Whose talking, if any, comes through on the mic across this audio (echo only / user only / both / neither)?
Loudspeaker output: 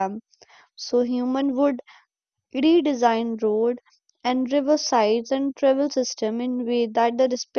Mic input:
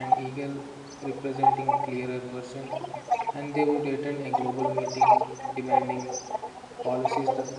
both